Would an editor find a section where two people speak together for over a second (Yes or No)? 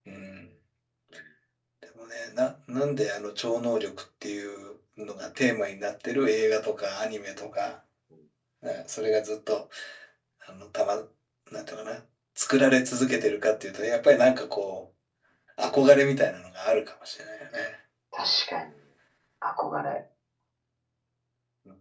No